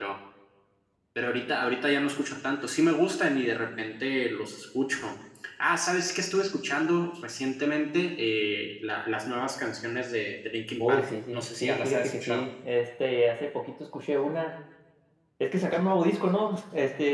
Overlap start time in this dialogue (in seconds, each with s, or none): 10.8 s